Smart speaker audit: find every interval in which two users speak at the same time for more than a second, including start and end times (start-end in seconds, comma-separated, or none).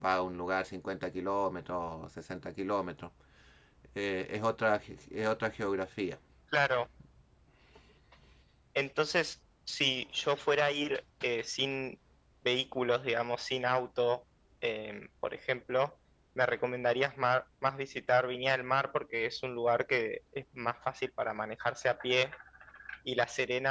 none